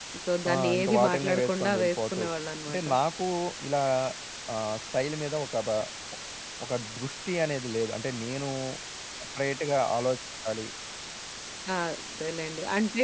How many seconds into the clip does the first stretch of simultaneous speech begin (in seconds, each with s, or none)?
0.5 s